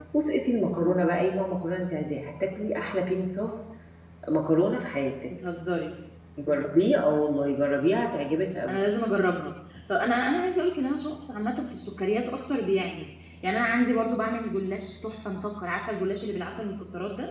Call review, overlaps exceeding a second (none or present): none